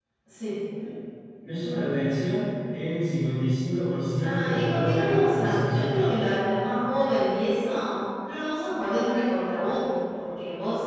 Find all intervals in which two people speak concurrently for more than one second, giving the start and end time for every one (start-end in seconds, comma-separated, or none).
4.2-6.0